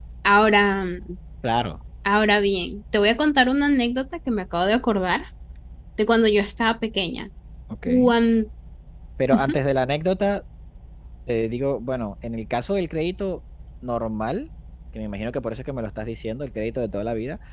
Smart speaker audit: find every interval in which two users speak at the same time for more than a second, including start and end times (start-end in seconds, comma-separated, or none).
none